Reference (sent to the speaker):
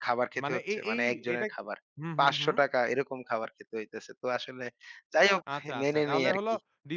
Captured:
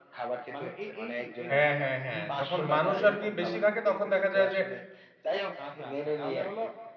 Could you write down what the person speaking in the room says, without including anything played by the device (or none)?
হ্যাঁ, হ্যাঁ, হ্যাঁ। যখন মানুষ আরকি বেশি থাকে তখন দেখা যায় যে